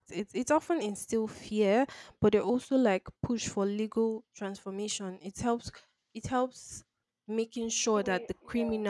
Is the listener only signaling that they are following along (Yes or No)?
Yes